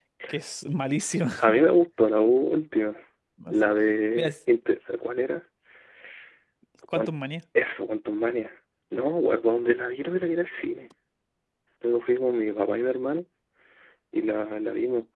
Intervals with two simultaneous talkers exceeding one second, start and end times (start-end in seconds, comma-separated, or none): none